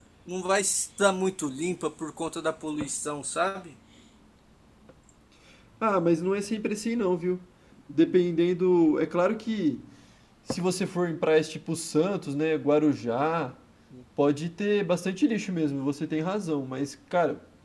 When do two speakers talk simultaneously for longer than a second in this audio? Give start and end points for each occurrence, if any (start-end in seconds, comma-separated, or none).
none